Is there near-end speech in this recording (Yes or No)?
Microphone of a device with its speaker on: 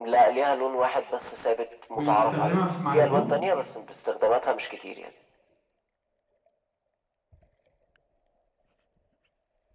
Yes